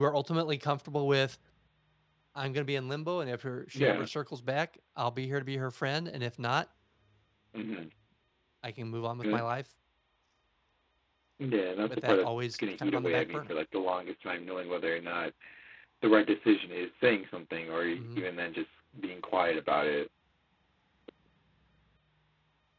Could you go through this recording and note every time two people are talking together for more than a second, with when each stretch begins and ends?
11.9-13.5

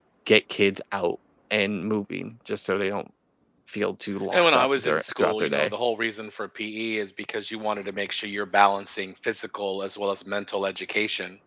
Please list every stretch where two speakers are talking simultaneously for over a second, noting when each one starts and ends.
4.3-5.7

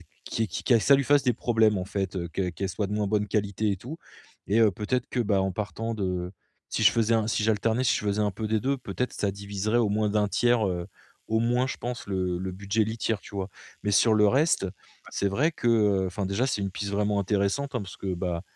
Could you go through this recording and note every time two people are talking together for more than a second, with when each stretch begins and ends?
none

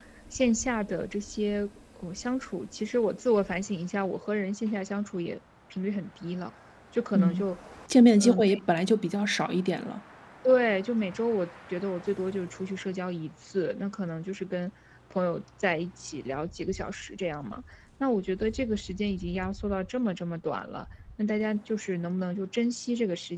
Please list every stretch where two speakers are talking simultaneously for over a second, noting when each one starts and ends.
none

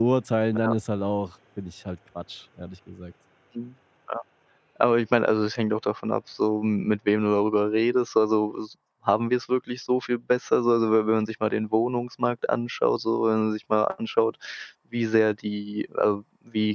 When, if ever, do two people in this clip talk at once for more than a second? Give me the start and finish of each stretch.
none

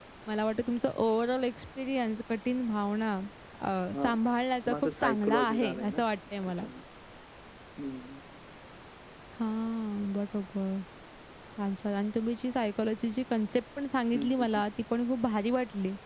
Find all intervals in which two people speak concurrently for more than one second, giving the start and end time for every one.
4.7-6.0

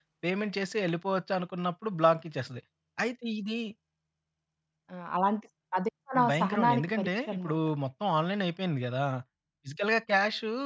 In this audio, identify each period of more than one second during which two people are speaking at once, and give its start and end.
6.3-7.6

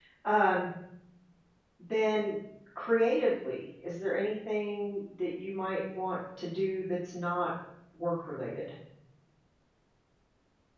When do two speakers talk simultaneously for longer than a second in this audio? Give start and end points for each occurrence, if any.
none

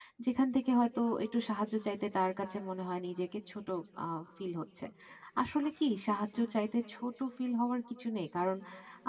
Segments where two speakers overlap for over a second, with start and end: none

